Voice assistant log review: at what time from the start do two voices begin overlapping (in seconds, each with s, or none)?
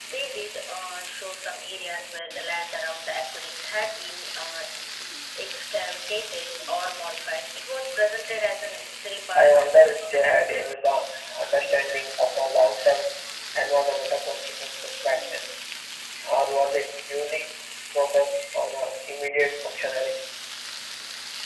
9.3 s